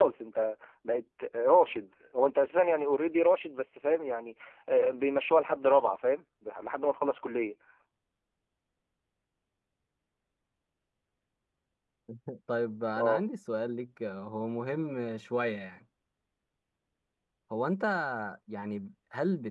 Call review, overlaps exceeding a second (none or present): none